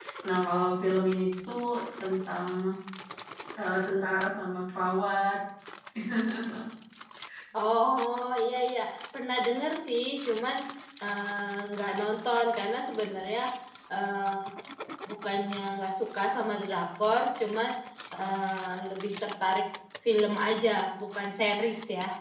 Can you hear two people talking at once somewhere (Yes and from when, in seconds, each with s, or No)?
No